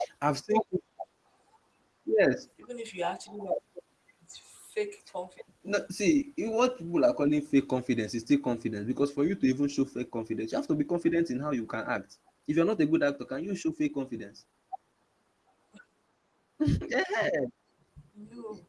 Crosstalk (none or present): none